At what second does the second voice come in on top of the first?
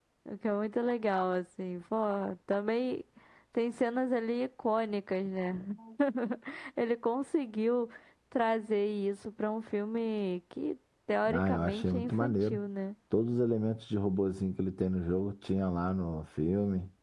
11.2 s

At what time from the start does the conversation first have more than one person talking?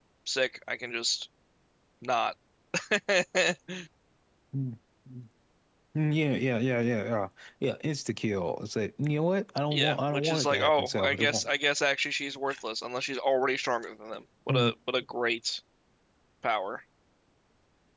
9.7 s

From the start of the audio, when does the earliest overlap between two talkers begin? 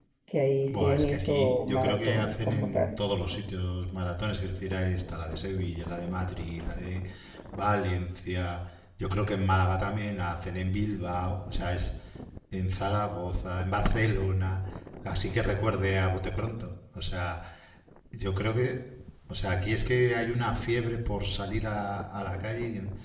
0.7 s

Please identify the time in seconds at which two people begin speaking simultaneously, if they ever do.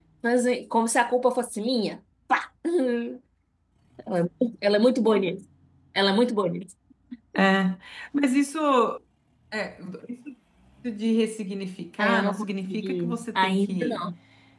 12.0 s

